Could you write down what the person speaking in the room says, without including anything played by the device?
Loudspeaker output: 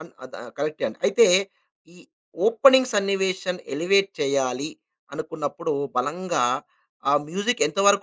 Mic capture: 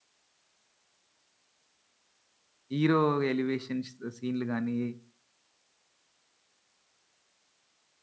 హీరో ఎలివేషన్స్ సీన్‌లు గాని,

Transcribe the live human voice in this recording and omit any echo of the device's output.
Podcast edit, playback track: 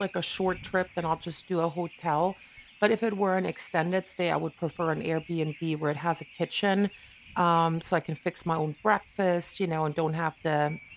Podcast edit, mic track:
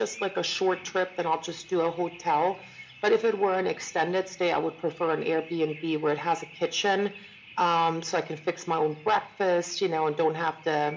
none

